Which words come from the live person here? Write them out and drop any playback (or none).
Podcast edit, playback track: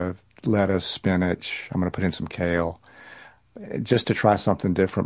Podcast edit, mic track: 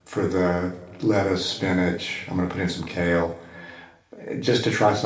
none